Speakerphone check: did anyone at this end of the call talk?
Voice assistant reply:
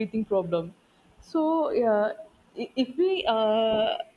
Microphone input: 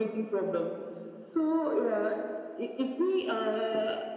No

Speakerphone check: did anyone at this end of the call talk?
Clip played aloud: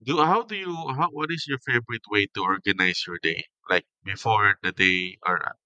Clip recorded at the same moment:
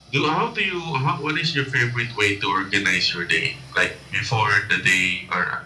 No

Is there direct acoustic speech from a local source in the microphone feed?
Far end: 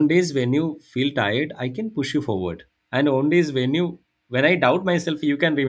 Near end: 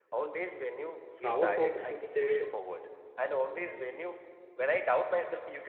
Yes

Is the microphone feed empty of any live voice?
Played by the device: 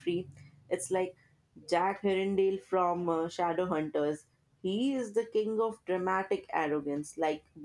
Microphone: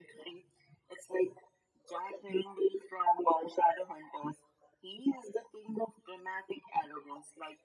Yes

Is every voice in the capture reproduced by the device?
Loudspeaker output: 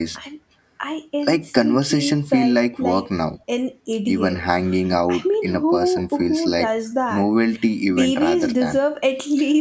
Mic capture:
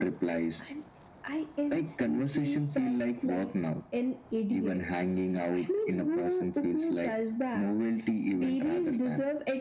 Yes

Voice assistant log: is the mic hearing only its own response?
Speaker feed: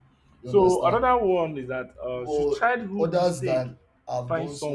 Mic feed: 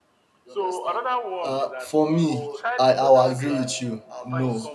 No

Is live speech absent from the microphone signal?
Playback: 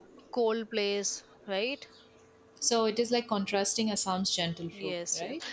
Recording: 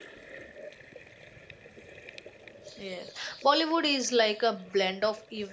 No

